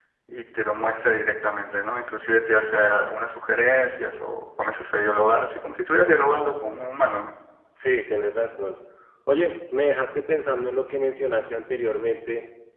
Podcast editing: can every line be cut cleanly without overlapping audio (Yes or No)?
Yes